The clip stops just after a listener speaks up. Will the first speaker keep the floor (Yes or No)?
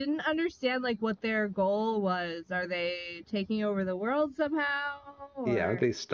No